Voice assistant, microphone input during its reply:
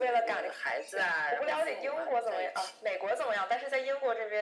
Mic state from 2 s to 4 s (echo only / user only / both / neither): echo only